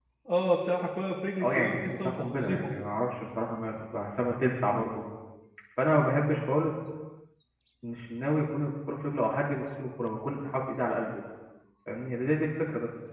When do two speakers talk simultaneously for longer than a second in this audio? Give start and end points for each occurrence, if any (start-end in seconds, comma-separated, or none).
1.4-2.7